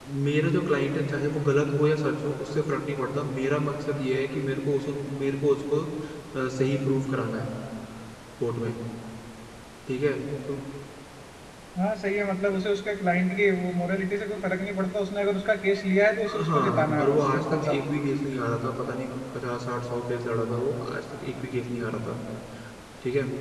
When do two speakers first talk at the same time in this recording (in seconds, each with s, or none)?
16.3 s